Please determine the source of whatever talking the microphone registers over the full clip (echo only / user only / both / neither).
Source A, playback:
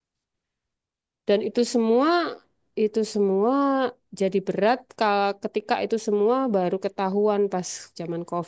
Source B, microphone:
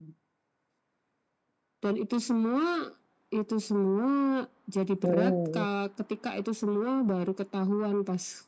both